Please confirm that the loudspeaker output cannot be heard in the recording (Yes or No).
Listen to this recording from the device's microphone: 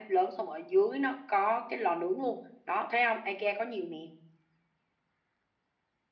No